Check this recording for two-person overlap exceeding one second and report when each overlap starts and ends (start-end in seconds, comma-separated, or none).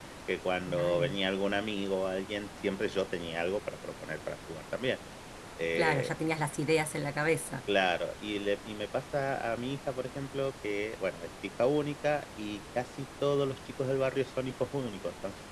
none